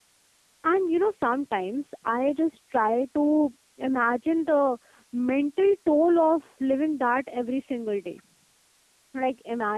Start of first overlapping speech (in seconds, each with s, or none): none